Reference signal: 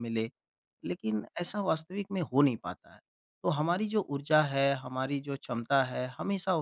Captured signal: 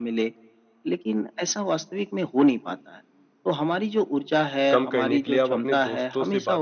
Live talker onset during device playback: 4.7 s

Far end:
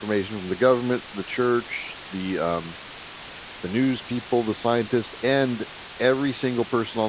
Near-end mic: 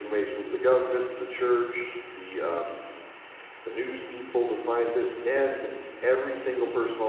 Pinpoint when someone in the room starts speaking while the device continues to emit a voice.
none

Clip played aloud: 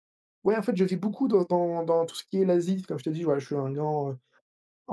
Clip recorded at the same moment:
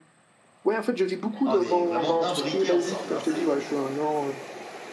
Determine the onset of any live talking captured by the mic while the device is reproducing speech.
1.4 s

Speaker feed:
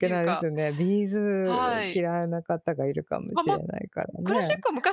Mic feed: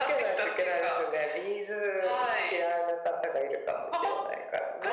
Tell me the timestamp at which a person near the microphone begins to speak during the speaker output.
none

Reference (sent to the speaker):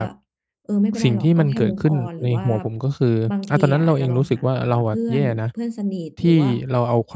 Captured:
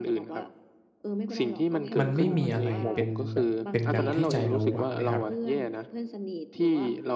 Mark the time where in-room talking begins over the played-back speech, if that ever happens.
2.0 s

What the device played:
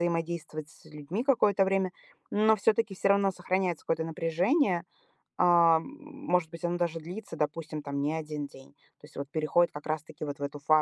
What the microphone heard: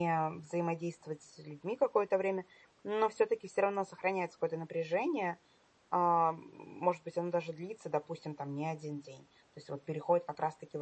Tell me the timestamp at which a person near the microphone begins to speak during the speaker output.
none

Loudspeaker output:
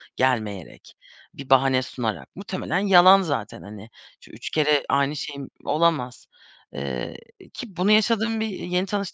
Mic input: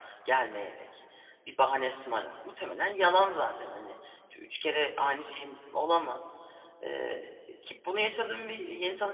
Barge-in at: none

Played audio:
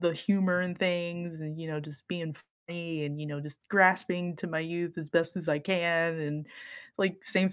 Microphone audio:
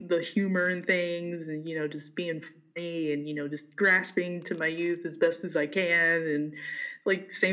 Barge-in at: none

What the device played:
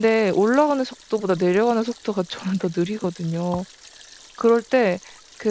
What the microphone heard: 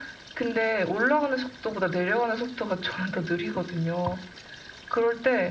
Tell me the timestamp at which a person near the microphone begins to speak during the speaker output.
none

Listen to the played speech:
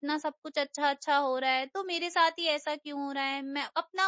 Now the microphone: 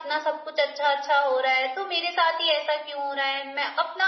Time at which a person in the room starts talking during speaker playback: none

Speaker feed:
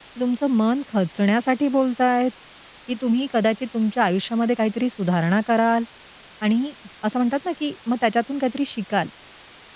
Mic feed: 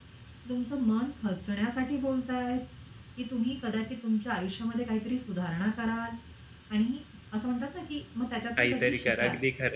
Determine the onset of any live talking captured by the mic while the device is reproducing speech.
8.6 s

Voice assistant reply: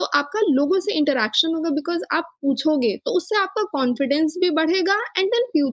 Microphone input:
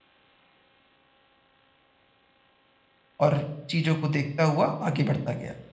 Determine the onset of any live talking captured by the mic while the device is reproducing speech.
3.2 s

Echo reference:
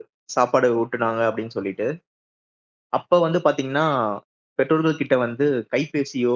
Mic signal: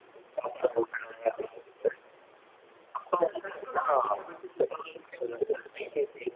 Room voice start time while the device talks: 3.2 s

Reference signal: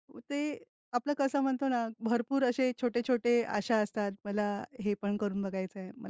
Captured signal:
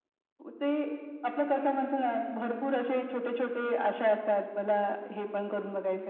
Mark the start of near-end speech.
none

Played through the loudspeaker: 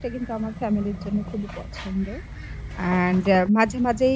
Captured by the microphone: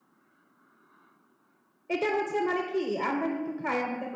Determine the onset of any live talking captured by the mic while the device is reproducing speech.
1.9 s

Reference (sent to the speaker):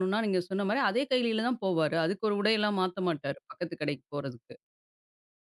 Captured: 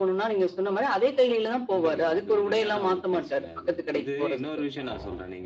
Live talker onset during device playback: 1.7 s

